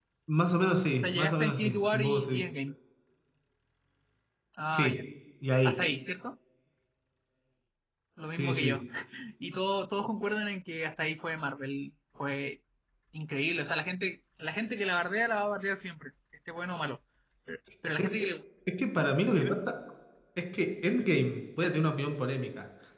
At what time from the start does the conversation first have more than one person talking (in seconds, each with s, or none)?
1.0 s